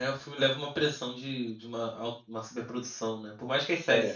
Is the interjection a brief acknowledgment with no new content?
Yes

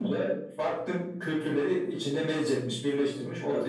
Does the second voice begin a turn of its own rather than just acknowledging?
Yes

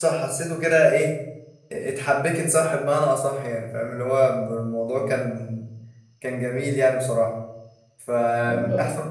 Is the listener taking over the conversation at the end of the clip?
No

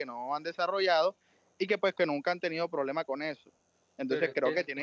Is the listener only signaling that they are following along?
No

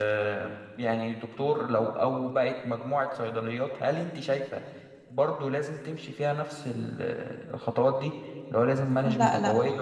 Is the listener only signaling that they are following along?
No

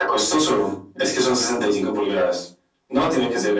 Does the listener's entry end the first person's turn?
No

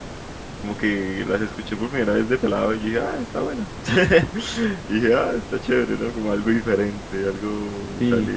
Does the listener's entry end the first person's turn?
Yes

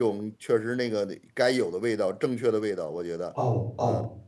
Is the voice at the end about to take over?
Yes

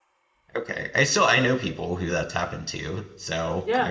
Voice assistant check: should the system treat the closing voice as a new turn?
Yes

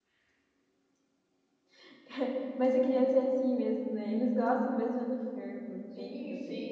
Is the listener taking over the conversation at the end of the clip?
Yes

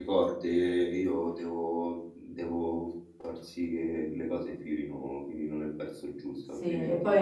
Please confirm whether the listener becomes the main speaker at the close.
Yes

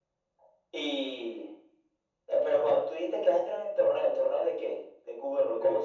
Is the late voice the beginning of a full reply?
Yes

